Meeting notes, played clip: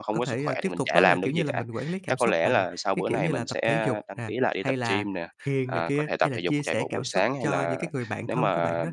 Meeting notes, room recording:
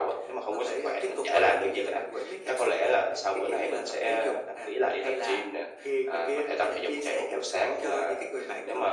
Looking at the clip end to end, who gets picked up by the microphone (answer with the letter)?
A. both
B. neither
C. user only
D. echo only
D